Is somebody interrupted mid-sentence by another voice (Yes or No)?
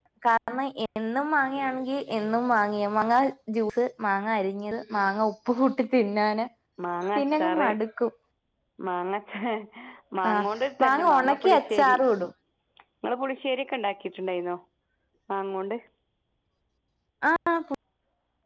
Yes